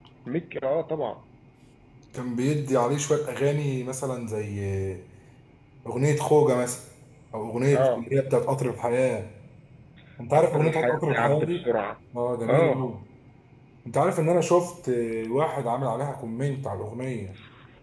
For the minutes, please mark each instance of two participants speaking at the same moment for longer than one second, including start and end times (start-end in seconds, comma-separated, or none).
10.3-11.6